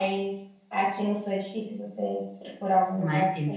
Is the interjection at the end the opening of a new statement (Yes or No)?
Yes